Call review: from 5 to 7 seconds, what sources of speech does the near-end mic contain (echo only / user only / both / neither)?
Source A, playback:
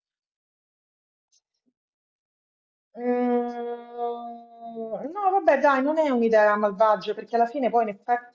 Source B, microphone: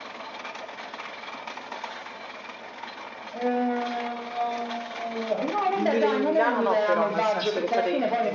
both